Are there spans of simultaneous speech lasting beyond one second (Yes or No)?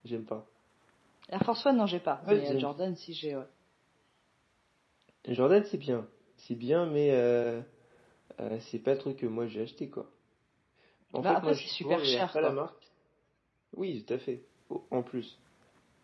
Yes